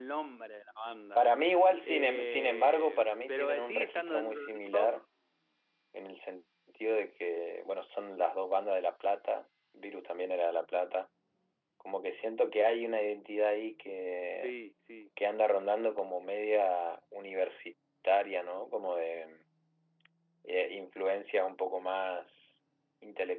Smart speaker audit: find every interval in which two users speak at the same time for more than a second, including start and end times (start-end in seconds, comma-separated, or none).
1.1-5.0